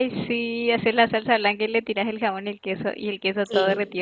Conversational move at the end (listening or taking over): taking over